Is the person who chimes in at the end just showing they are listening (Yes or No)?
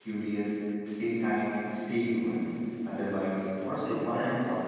No